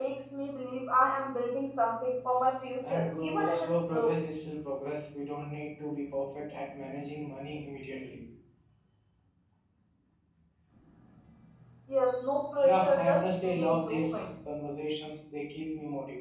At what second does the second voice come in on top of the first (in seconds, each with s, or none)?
2.9 s